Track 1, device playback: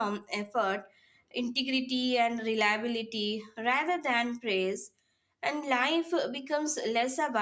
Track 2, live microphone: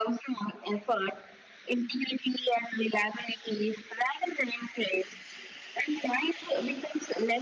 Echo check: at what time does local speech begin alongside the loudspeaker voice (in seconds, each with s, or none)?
none